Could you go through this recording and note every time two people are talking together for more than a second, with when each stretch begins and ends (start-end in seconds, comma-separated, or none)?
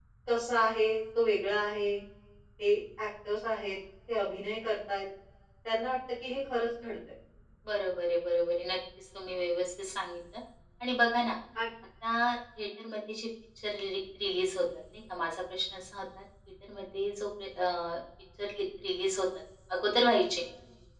none